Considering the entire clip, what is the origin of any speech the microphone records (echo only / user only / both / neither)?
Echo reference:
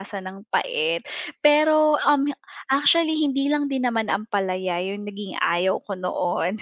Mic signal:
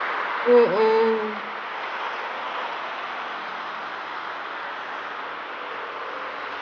user only